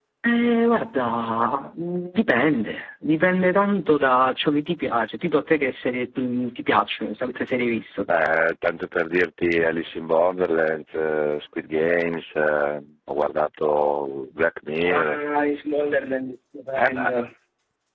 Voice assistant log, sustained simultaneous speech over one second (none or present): none